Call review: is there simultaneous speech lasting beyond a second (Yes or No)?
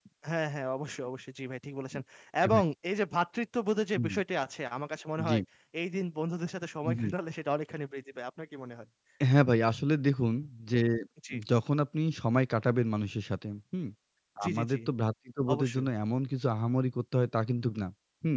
No